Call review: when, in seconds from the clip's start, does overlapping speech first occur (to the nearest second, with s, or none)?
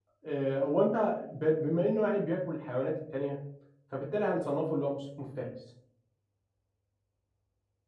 none